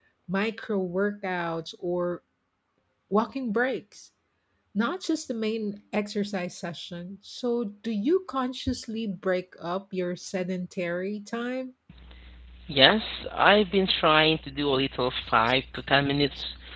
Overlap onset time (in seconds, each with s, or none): none